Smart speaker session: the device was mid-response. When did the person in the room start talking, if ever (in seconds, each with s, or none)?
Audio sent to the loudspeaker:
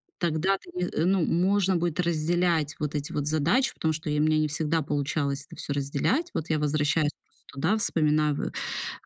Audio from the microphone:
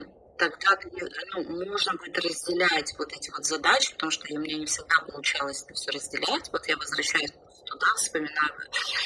none